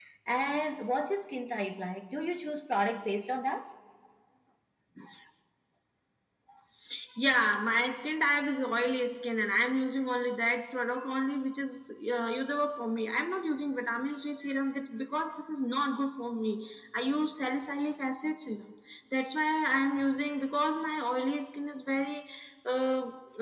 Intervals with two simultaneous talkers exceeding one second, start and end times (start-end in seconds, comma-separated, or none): none